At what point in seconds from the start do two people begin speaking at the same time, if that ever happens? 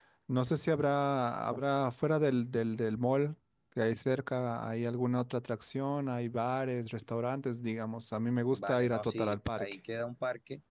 8.5 s

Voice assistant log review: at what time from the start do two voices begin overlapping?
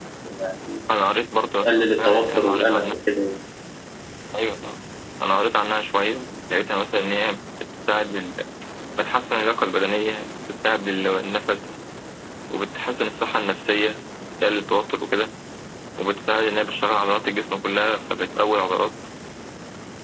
1.6 s

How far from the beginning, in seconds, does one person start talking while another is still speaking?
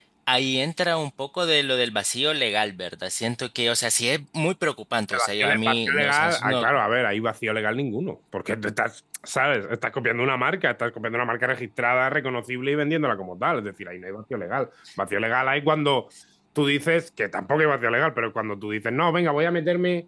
5.1 s

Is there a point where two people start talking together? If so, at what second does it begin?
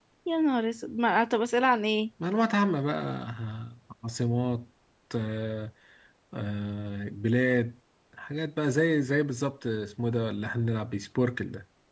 none

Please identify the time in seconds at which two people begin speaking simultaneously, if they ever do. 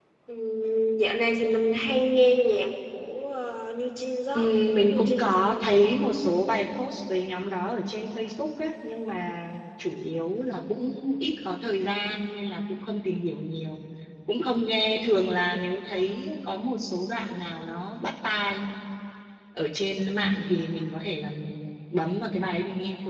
4.4 s

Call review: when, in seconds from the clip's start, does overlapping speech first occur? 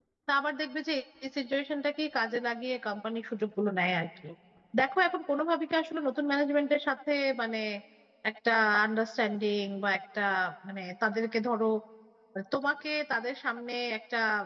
none

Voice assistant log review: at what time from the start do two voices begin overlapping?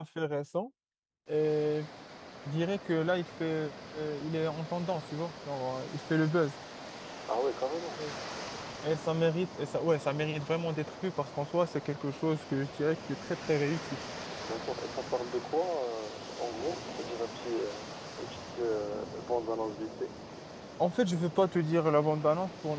none

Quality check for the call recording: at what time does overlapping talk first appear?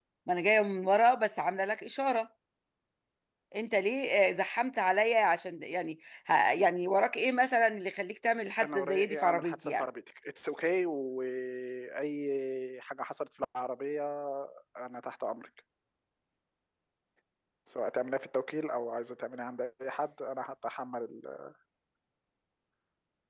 8.6 s

